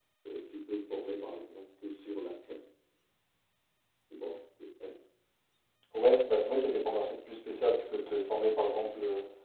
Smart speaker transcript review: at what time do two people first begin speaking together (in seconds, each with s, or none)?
none